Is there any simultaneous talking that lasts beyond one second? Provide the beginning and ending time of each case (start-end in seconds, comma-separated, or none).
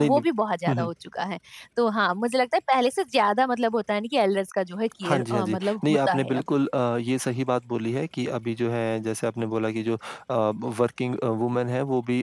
5.0-6.4